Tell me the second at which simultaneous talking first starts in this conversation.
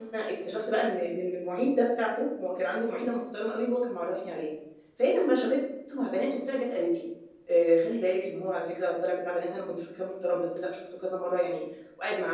none

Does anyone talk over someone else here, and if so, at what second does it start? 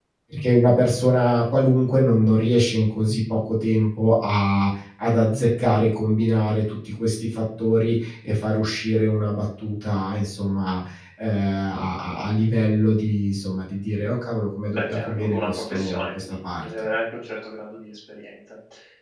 14.7 s

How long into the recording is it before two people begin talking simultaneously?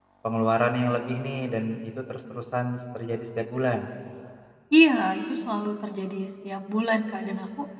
none

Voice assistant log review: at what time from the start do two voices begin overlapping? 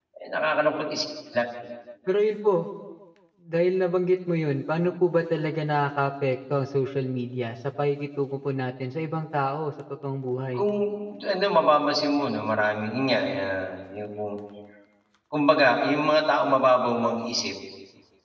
none

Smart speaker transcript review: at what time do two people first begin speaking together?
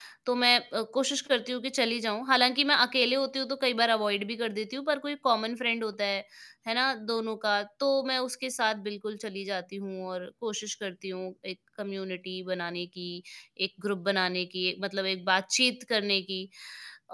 none

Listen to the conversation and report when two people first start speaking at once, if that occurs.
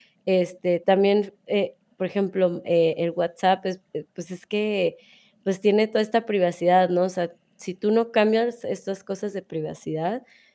none

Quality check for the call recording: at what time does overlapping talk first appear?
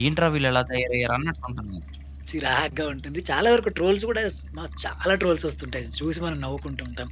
none

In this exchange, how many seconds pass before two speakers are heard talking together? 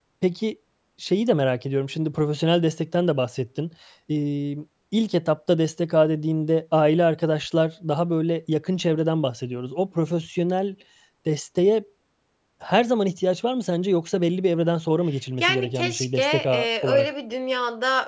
15.4 s

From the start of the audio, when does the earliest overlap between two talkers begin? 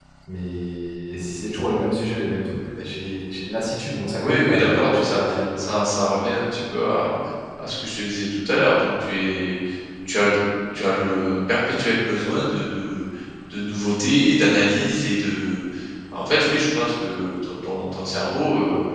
4.2 s

